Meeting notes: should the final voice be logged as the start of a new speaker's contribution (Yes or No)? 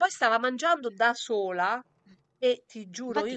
Yes